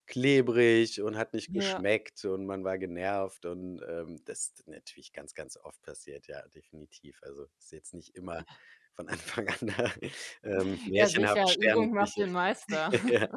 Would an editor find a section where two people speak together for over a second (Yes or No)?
Yes